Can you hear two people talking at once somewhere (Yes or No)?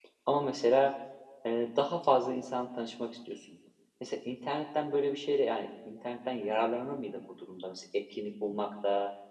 No